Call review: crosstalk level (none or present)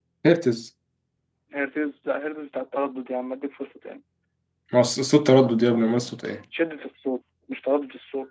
none